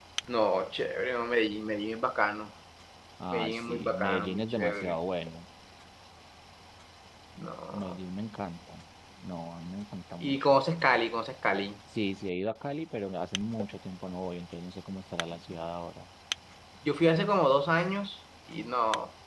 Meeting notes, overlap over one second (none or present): present